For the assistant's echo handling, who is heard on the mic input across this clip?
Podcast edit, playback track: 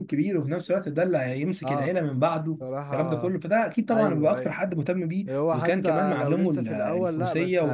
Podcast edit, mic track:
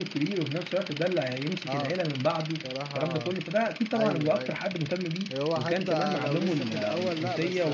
echo only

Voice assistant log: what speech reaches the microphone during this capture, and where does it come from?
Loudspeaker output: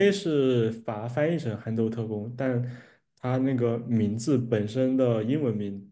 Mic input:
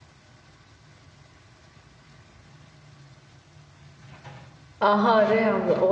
user only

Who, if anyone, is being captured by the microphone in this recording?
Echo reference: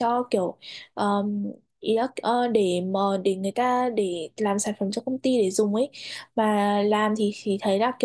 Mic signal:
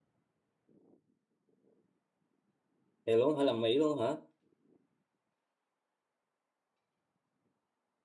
user only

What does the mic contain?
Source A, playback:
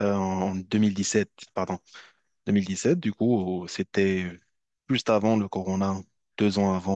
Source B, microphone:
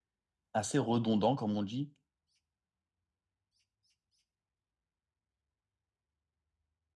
user only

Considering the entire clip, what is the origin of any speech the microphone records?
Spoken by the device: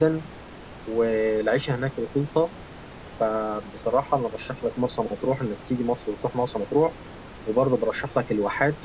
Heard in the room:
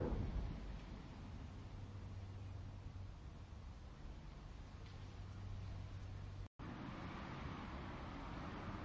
neither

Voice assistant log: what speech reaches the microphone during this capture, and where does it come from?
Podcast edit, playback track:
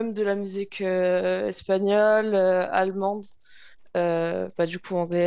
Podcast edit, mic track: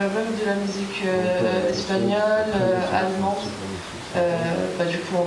both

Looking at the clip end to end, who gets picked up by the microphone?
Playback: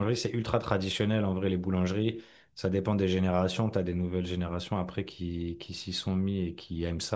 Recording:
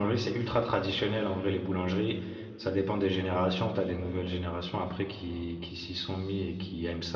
echo only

